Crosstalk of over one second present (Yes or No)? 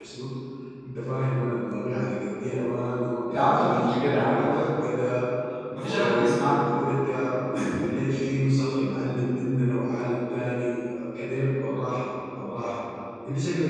Yes